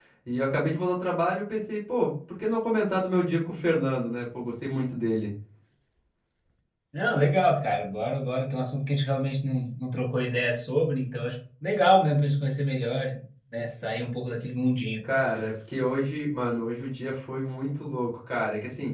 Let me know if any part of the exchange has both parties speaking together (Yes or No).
No